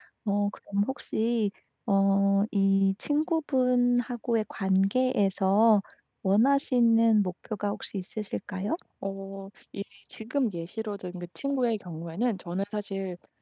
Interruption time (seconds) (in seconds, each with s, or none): none